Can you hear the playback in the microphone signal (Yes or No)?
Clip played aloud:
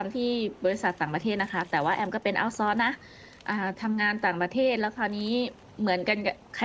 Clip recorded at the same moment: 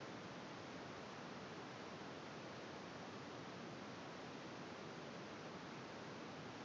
No